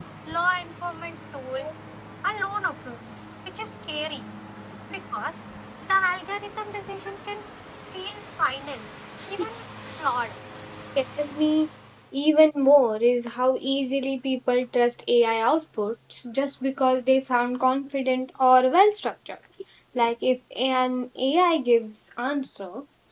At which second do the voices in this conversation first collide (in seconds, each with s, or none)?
none